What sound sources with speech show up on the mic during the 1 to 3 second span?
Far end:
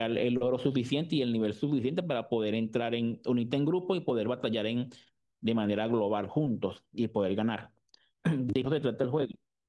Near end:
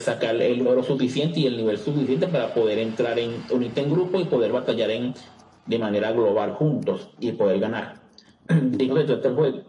echo only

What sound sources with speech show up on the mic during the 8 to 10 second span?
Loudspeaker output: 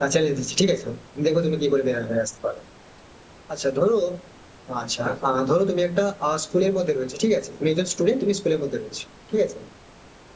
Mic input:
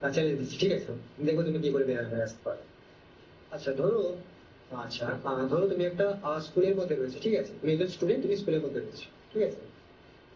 echo only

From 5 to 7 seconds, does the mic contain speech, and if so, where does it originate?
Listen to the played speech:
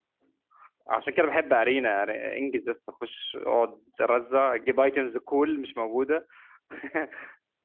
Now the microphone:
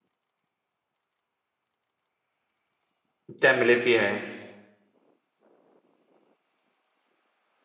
neither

